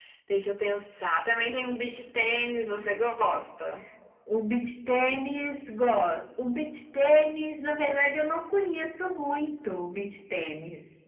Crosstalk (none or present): none